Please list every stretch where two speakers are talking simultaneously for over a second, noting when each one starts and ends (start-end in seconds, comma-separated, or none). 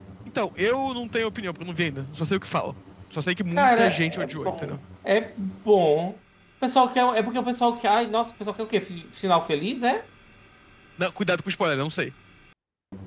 3.5-4.8